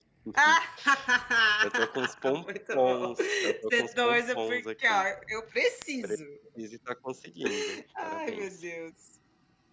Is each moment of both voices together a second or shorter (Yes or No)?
No